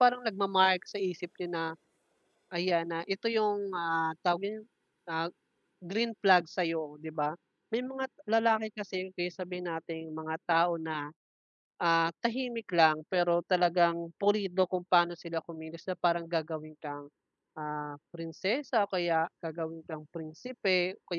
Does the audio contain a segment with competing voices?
No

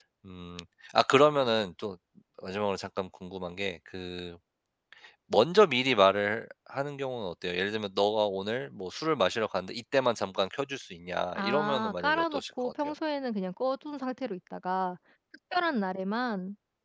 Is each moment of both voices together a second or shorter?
No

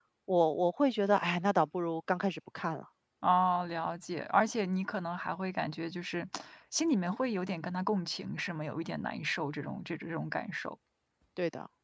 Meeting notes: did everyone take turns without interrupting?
Yes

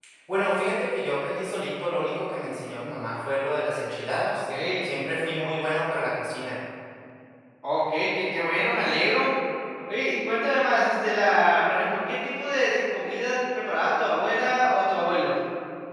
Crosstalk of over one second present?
No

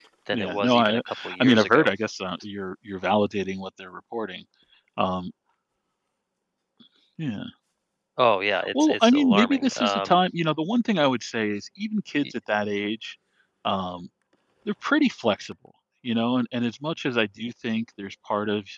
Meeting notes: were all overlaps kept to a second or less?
No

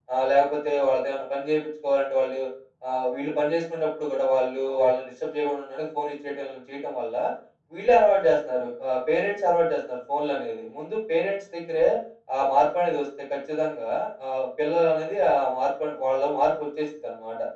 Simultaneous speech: No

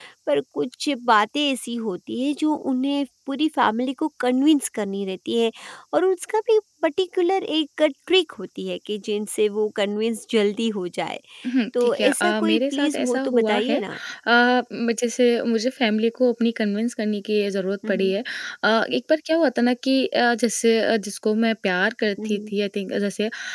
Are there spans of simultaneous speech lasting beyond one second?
Yes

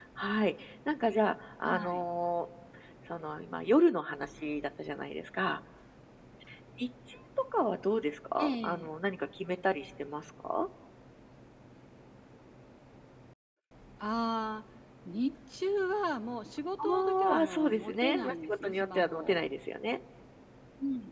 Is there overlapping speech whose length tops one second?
Yes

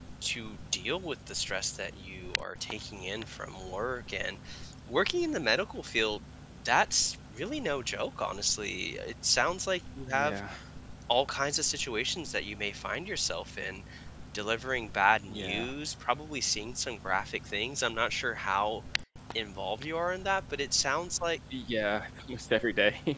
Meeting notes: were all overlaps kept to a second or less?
Yes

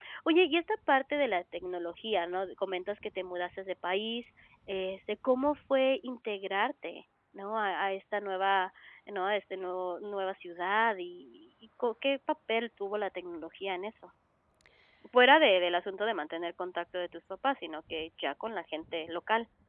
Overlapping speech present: No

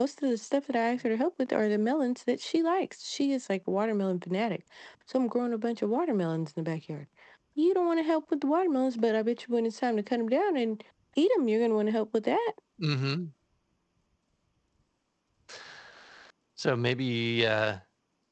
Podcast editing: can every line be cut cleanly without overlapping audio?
Yes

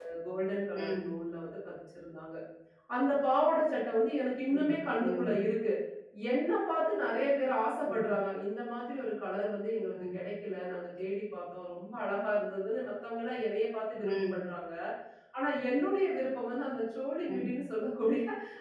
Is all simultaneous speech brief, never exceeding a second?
Yes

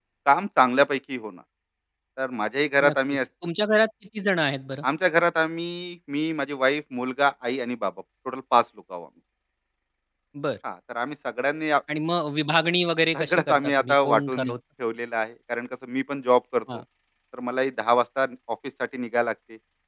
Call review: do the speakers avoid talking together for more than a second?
No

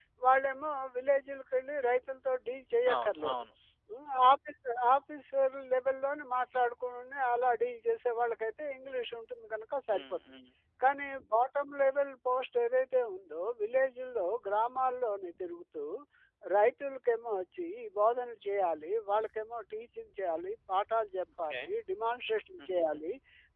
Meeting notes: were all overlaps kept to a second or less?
Yes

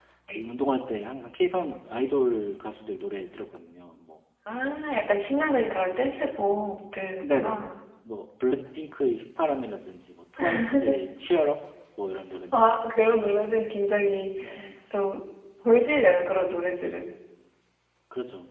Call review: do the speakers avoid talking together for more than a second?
Yes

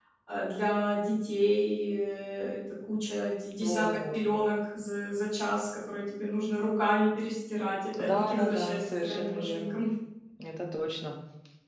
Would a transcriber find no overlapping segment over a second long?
No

